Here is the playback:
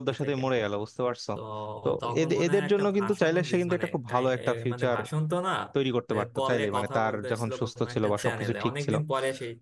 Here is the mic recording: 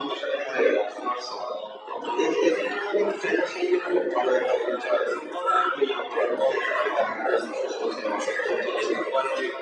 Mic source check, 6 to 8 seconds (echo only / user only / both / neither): echo only